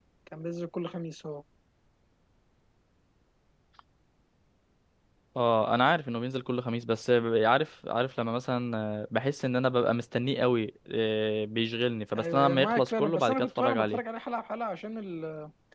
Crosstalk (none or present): present